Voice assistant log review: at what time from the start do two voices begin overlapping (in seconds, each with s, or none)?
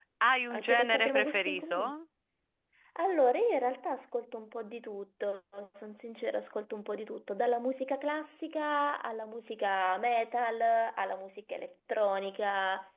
0.5 s